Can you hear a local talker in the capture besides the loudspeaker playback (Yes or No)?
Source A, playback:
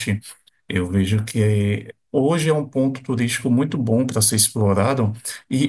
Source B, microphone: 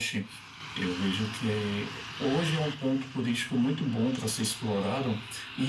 No